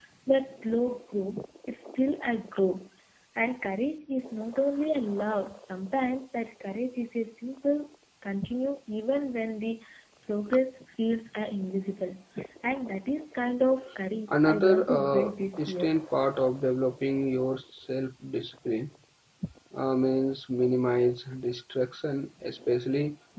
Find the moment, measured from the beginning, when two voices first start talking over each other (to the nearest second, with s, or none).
14 s